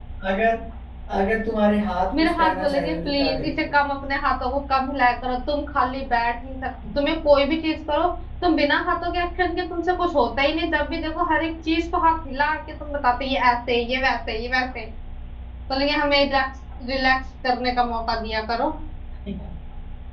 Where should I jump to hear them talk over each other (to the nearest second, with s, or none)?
2 s